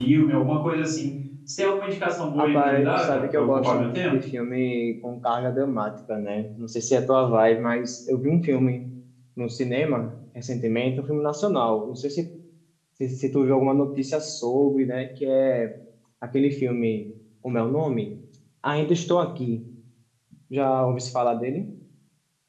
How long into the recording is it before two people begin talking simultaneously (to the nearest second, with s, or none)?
2 s